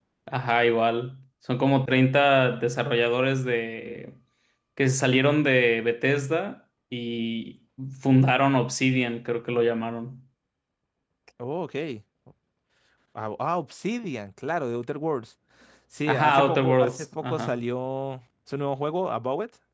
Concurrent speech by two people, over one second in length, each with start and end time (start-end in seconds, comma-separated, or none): 16.1-17.5